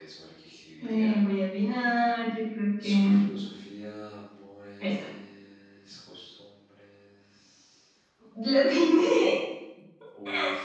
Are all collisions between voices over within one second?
Yes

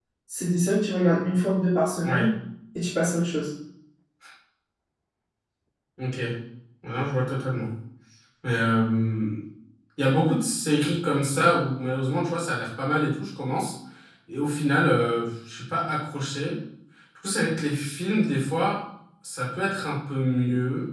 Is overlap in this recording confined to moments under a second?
Yes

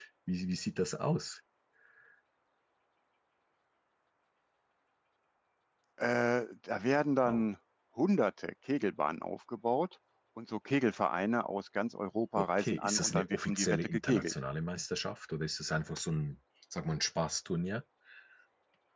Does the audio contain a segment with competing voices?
Yes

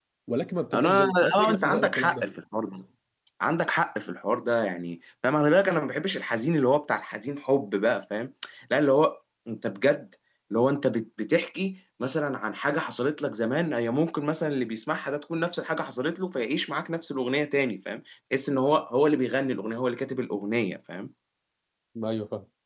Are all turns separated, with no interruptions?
No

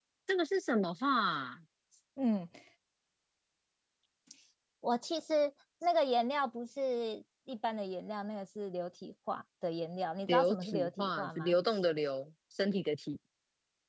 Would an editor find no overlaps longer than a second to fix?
No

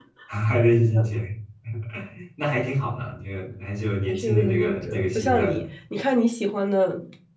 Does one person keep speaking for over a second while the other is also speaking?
Yes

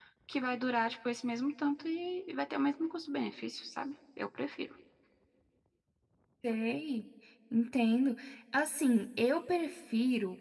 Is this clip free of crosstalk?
Yes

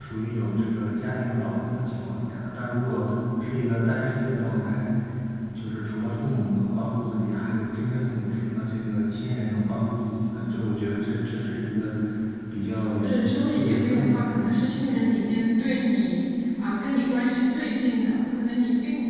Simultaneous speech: Yes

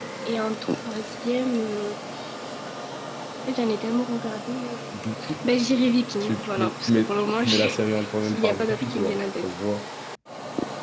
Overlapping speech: Yes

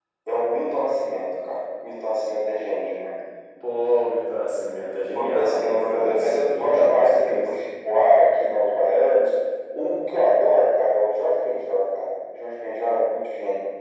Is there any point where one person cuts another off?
Yes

